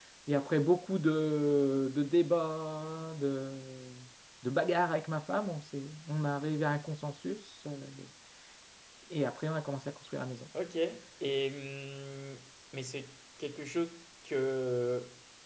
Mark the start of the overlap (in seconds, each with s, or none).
none